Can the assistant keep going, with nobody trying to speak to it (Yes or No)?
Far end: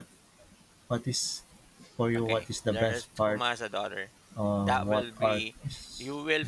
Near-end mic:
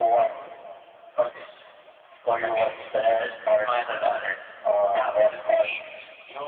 Yes